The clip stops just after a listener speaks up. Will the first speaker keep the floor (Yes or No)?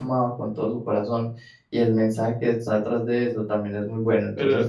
No